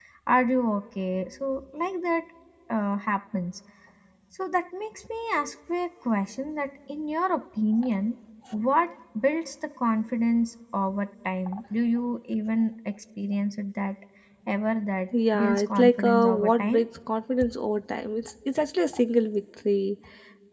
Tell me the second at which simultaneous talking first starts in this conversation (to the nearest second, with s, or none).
15 s